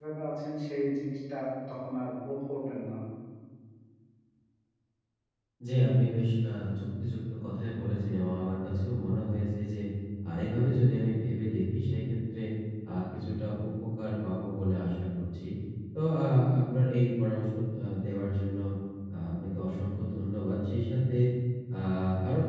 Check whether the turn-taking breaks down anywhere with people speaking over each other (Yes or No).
No